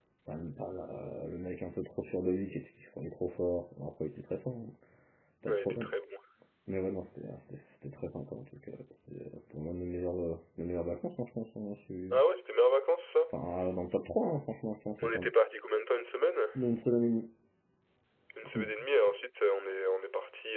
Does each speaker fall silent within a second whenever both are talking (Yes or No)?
Yes